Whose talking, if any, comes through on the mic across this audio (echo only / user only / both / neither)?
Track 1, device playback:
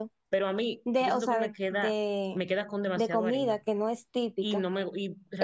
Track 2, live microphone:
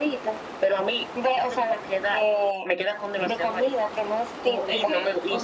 both